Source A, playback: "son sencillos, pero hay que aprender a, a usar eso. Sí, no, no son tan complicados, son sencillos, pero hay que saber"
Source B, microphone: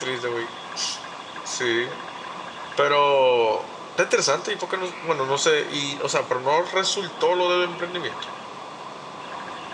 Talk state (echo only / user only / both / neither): user only